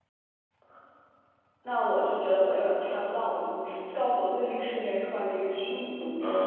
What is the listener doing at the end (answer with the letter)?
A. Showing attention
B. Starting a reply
B